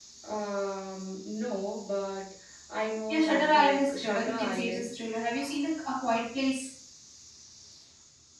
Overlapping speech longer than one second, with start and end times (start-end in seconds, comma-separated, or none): 3.1-4.9